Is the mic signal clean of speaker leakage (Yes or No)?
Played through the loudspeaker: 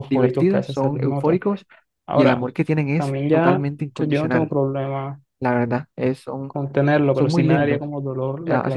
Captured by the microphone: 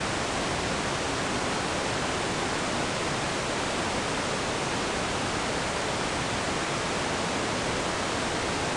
Yes